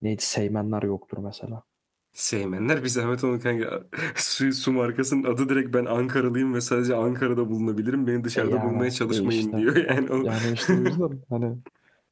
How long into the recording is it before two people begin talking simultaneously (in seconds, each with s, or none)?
8.3 s